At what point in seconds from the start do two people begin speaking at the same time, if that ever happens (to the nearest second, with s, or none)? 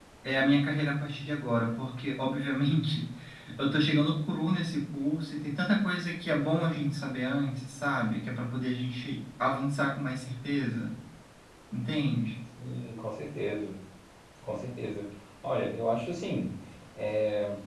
none